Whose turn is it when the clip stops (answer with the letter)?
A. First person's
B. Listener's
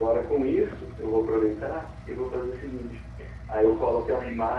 A